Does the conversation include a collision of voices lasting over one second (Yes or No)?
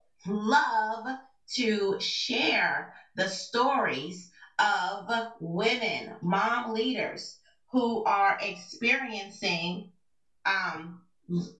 No